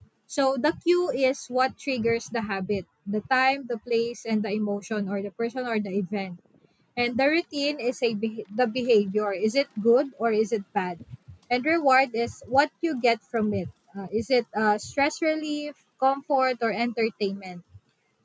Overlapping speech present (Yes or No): No